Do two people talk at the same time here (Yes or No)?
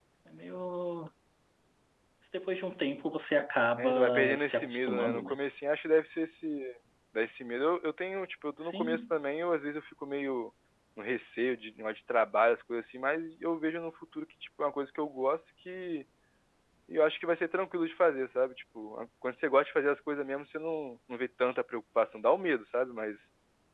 Yes